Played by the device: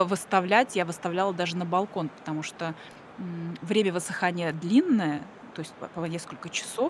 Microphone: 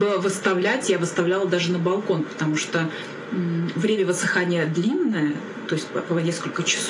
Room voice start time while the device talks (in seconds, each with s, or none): none